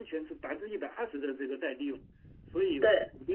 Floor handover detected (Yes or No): No